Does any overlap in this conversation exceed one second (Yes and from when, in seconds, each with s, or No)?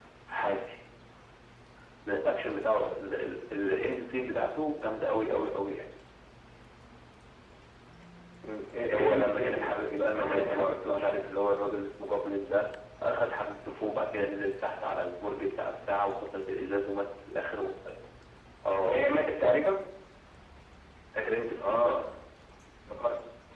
Yes, from 8.8 s